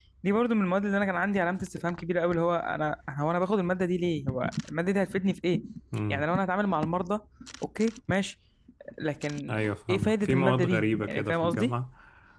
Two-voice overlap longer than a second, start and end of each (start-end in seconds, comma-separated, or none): 9.9-11.7